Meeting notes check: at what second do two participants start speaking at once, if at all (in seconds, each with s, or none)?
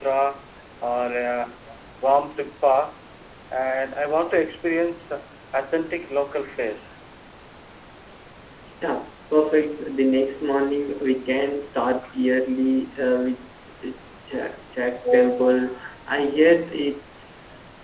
none